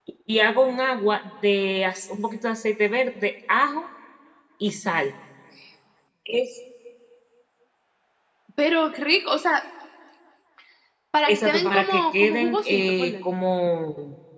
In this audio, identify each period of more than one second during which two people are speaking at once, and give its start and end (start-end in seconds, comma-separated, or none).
11.3-13.2